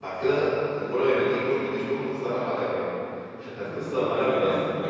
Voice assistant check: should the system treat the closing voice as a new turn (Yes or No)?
Yes